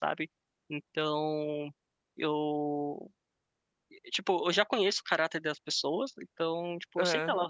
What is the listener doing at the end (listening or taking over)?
listening